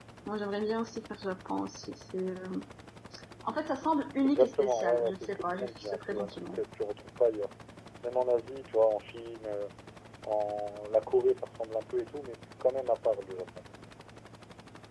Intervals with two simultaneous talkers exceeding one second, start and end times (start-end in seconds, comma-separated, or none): 4.2-6.6